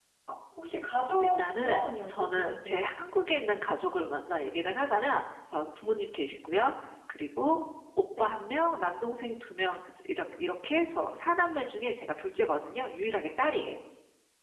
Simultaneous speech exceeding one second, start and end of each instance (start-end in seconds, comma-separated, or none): 1.2-2.9